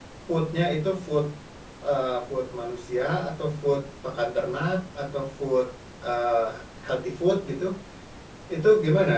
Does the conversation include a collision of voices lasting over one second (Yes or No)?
No